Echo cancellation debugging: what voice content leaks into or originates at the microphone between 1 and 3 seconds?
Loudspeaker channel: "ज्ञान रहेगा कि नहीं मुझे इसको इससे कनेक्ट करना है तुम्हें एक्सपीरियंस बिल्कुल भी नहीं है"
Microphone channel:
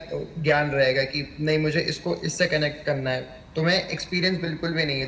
echo only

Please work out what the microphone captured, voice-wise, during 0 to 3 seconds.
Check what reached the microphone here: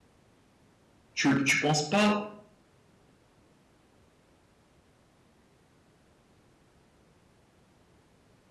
user only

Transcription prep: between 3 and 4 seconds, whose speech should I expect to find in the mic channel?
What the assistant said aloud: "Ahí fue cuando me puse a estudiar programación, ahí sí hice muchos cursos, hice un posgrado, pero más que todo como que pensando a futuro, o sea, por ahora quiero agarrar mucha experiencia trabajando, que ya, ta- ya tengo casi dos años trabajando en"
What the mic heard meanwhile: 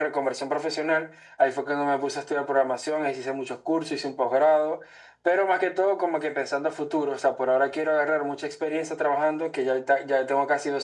echo only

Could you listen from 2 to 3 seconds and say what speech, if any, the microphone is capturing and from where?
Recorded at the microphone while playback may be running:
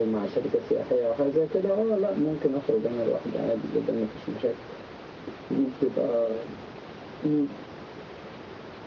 echo only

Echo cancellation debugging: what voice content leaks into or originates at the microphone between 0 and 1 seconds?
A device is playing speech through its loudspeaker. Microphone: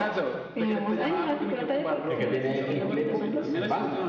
echo only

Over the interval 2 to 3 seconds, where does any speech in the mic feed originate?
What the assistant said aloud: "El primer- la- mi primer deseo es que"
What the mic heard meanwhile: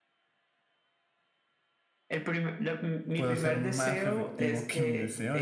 echo only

